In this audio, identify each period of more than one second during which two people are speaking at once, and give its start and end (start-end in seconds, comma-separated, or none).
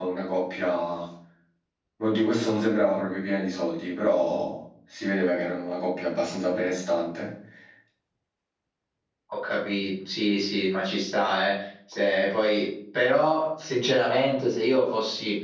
none